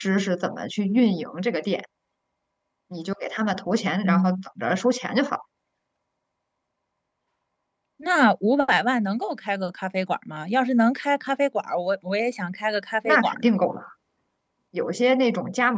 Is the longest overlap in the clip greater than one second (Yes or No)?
No